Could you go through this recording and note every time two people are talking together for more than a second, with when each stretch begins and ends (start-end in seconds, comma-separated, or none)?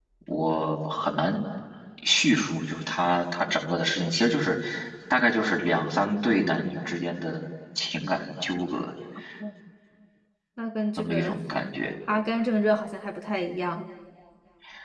none